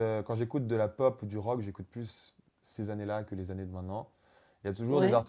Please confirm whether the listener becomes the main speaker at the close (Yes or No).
No